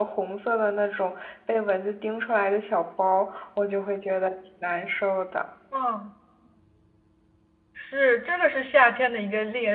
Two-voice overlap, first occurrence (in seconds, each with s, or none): none